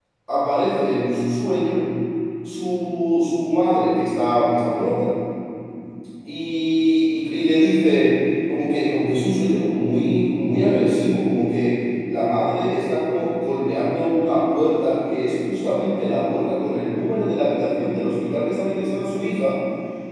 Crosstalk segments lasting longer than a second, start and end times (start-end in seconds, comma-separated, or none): none